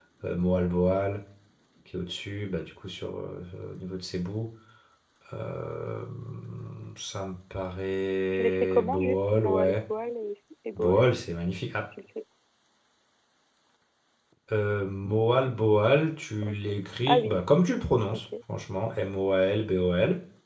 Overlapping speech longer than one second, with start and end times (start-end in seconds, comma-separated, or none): 8.3-9.8